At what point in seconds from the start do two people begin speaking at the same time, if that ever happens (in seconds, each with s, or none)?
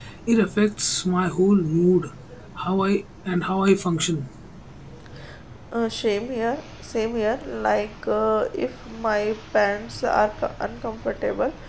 none